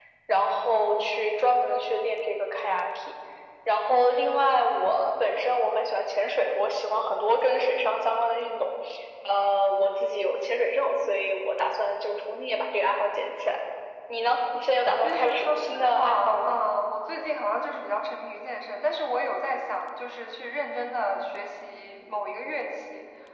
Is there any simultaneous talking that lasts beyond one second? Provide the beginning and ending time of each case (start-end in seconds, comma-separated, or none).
15.0-16.6